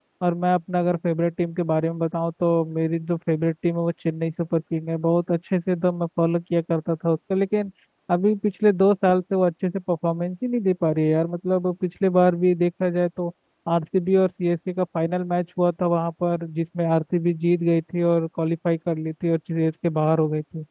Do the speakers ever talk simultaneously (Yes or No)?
No